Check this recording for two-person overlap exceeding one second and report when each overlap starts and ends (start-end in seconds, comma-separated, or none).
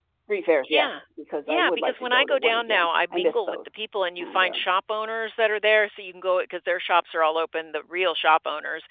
1.5-3.6